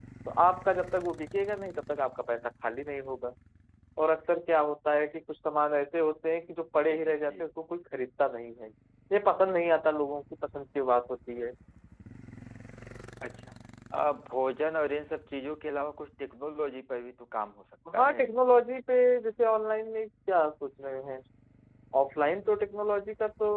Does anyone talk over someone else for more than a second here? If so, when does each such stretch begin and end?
none

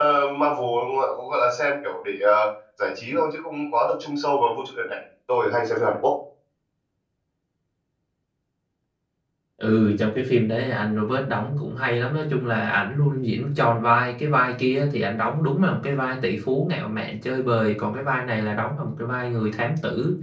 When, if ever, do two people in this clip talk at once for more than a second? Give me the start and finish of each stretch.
none

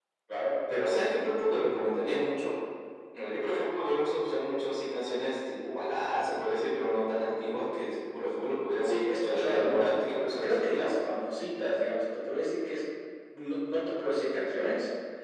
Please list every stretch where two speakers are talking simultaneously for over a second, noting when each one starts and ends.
8.8-10.9

